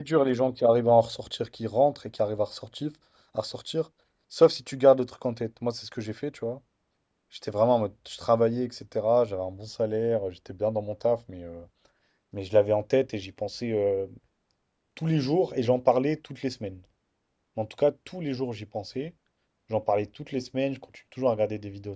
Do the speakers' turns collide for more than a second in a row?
No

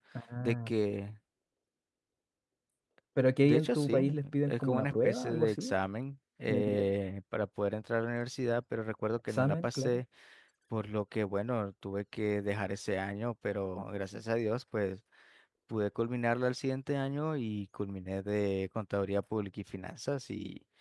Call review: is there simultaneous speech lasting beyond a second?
Yes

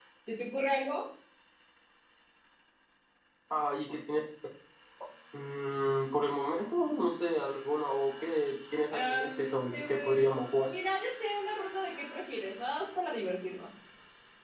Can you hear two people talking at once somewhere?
Yes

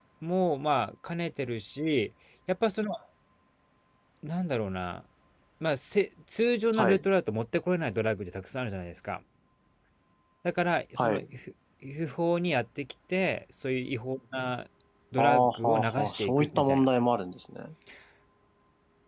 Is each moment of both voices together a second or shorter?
No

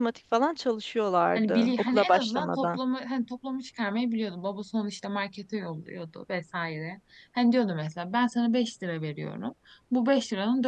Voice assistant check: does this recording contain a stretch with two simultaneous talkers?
Yes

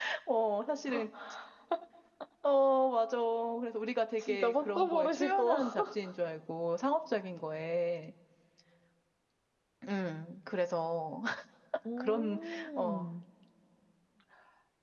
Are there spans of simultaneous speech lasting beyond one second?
Yes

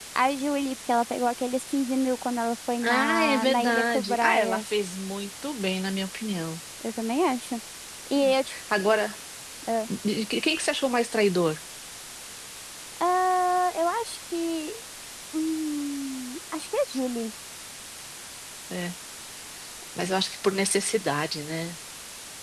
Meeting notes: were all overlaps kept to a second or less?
No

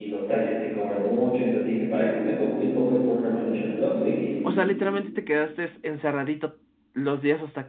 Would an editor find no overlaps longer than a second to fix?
Yes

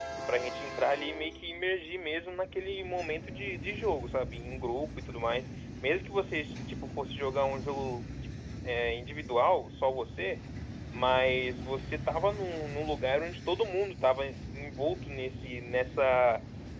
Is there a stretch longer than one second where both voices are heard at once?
No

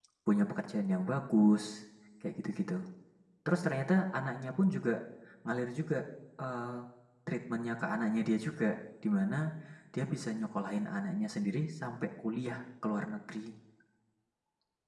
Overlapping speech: No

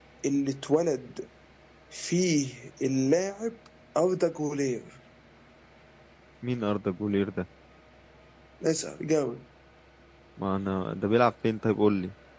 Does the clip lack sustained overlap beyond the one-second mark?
Yes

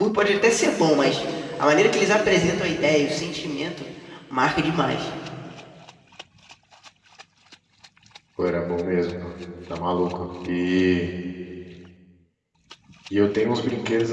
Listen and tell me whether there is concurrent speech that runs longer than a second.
No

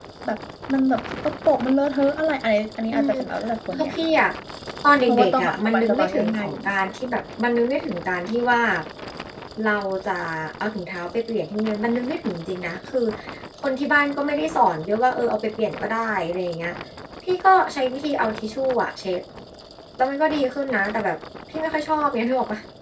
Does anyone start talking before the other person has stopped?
Yes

